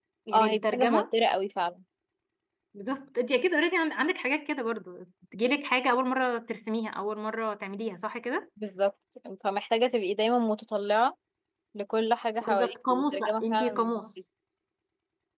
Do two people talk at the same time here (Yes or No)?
Yes